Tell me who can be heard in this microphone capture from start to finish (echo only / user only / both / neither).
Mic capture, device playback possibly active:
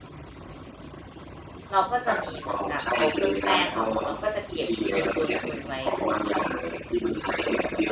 both